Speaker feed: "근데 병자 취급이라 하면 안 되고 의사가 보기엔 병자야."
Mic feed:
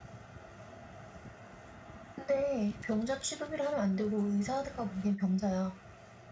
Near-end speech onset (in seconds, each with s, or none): none